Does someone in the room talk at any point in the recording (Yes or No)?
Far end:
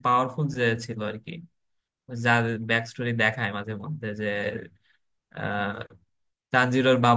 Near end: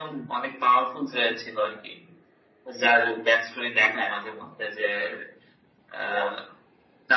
No